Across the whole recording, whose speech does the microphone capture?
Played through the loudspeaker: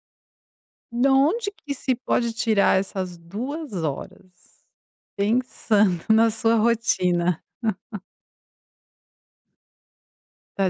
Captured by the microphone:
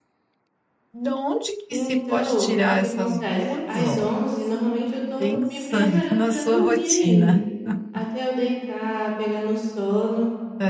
both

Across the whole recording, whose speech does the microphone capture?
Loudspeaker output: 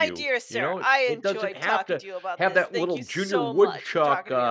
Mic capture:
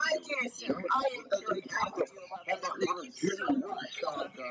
echo only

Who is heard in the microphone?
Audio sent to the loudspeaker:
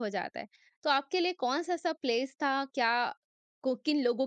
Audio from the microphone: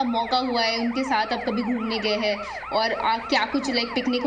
user only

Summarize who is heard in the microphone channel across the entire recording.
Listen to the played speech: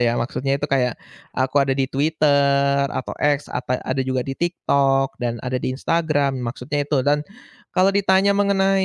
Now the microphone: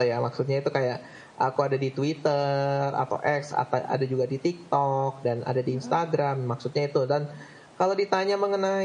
both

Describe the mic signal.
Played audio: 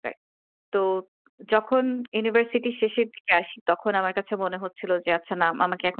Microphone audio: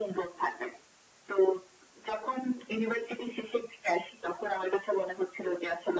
echo only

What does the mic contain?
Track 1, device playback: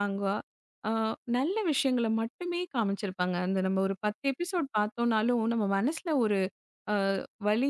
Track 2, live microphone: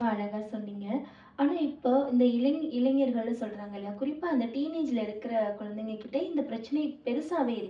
user only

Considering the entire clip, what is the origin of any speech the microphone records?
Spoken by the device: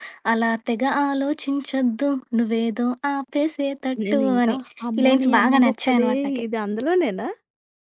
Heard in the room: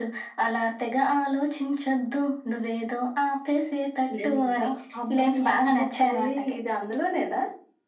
echo only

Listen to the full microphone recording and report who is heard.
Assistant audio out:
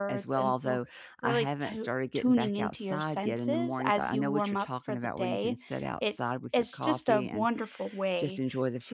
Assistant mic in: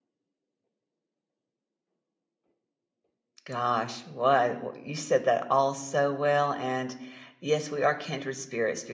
user only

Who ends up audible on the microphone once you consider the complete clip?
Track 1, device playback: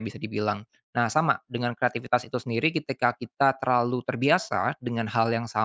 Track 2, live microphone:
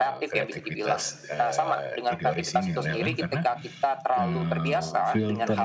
both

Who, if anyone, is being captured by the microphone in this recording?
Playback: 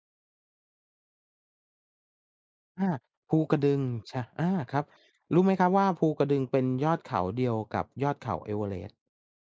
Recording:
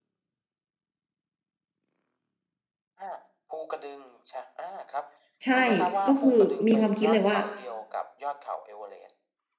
both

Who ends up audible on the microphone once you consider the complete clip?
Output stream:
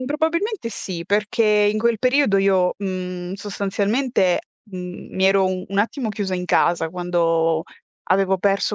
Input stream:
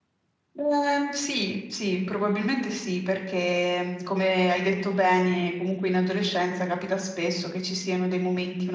user only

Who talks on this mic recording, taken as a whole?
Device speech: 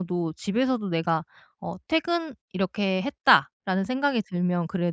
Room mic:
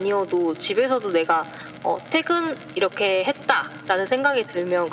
echo only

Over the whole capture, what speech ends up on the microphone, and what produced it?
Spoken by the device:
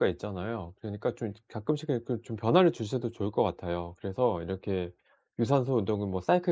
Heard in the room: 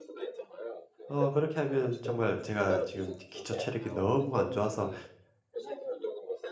both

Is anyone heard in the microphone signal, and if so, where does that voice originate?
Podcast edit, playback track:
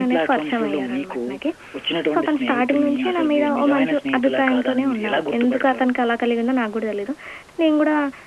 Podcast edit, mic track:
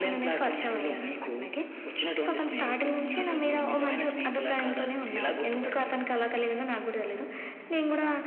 echo only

